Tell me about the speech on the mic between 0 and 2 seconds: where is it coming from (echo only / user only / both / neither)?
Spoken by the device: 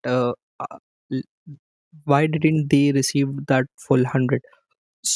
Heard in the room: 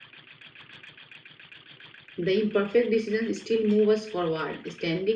neither